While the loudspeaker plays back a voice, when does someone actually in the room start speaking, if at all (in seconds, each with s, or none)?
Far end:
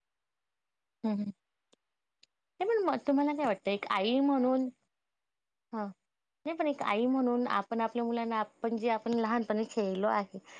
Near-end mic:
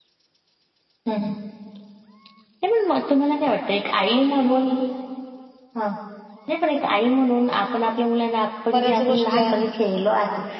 8.7 s